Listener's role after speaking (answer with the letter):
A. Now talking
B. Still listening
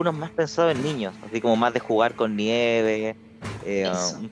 B